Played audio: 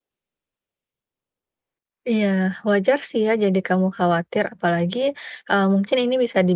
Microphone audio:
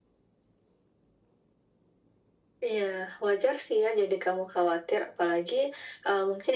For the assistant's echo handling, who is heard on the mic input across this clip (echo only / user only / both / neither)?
echo only